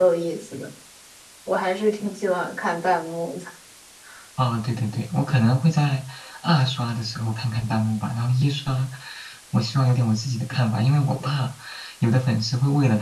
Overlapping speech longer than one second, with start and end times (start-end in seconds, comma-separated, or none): none